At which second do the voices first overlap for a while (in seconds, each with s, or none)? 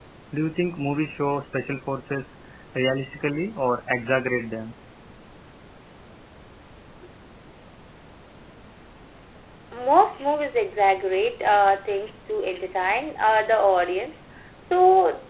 none